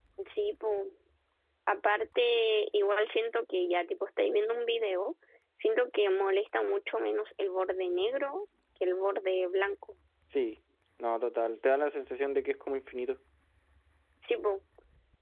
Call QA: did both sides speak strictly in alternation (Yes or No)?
Yes